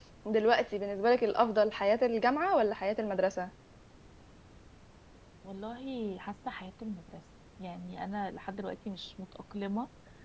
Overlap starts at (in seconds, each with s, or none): none